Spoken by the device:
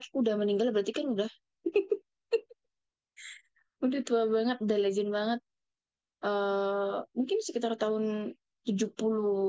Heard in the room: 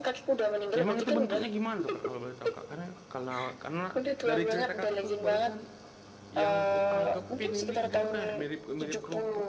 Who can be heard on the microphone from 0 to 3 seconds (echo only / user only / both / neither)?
both